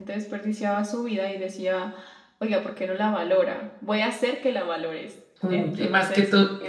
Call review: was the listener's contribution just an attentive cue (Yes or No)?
No